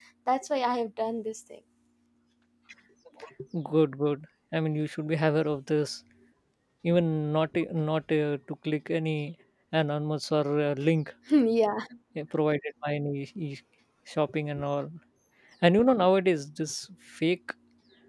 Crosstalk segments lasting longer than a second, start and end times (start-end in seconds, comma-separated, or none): none